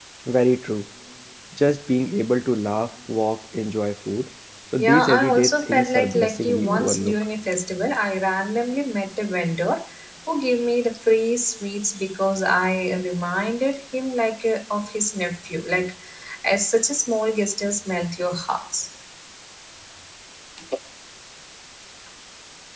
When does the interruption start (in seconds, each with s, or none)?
4.8 s